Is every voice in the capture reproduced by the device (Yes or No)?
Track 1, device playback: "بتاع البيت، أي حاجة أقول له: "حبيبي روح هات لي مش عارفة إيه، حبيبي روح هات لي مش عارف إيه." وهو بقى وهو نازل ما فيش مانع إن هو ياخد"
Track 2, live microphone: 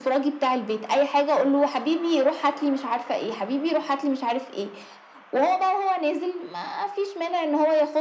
Yes